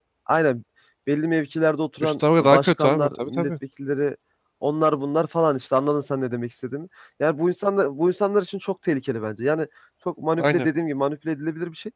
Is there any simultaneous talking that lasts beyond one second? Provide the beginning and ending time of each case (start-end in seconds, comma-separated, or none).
2.0-3.5